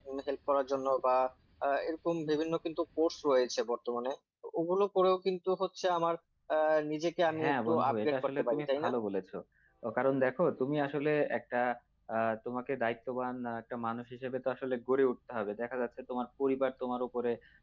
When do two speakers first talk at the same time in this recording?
7 s

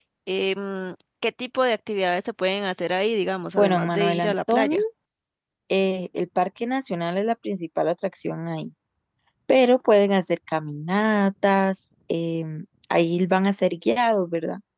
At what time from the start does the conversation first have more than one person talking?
4 s

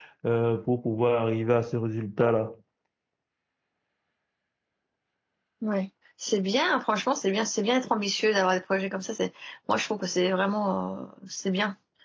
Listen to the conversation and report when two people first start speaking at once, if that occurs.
none

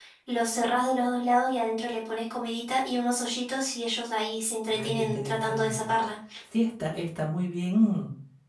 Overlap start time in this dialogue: 5 s

